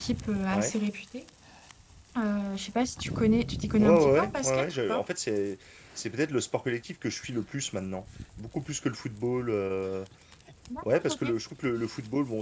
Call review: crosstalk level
present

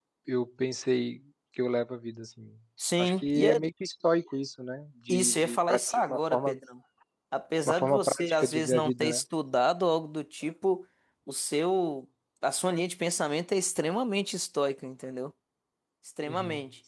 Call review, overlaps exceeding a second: present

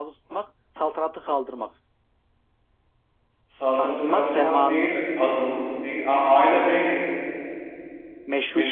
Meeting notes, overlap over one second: present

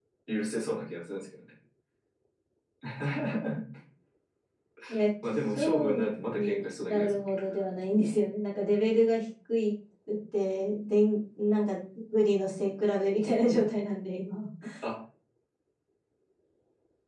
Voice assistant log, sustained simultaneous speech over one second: present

